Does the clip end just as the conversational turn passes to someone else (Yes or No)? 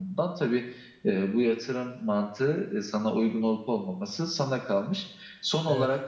No